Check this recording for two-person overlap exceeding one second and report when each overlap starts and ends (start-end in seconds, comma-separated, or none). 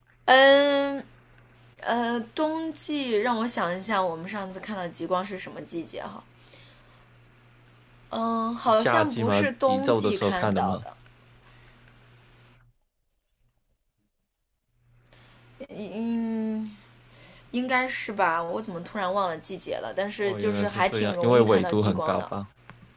8.7-10.8, 20.2-22.2